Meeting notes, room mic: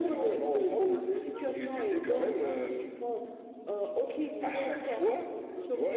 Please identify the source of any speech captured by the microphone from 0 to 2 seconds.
both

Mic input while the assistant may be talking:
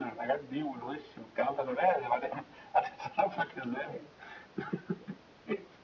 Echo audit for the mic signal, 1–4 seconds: echo only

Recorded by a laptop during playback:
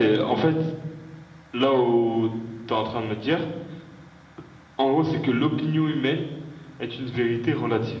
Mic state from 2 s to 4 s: echo only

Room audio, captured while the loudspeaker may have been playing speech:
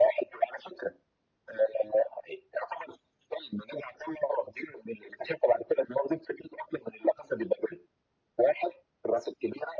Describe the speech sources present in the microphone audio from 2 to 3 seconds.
echo only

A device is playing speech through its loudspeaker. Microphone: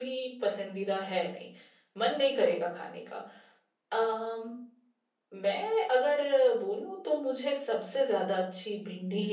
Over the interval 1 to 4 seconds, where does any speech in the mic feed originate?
echo only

